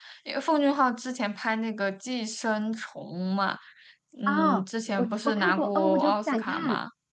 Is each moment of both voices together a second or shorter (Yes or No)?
No